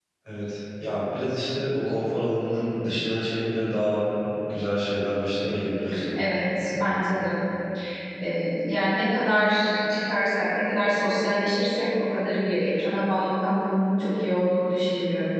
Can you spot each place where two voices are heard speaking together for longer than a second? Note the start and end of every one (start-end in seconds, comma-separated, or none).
none